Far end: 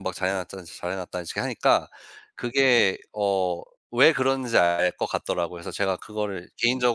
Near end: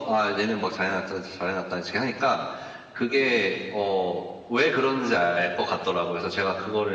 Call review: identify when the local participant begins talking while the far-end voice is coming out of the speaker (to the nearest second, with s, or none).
none